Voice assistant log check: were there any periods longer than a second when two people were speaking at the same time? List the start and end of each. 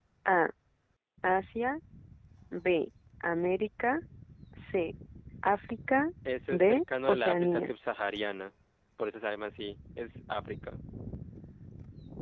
6.5-7.7

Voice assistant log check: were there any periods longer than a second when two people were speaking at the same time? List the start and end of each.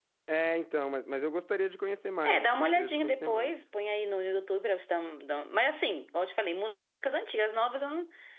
2.2-3.5

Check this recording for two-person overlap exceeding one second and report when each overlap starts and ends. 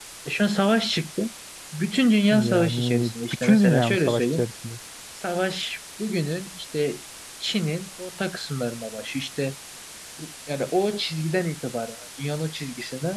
2.3-4.4

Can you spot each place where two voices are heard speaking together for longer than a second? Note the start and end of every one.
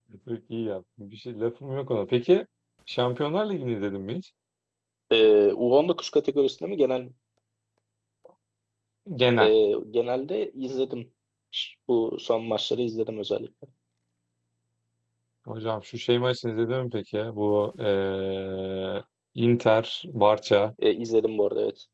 none

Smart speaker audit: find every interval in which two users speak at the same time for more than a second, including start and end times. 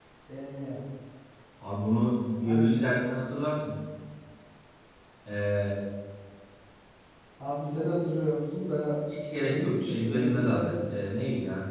9.3-10.7

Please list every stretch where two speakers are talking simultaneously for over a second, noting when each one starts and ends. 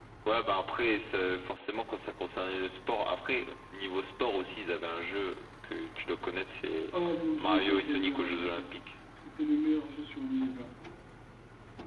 7.4-8.6

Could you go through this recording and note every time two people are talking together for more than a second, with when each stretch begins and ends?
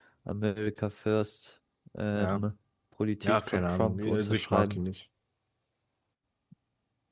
3.2-4.8

